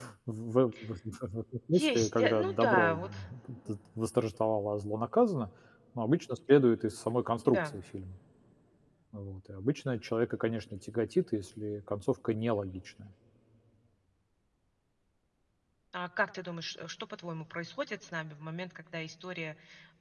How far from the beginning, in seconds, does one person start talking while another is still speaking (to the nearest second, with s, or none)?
2 s